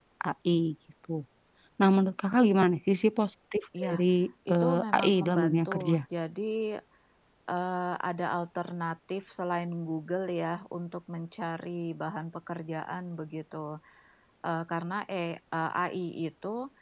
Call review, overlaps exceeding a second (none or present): present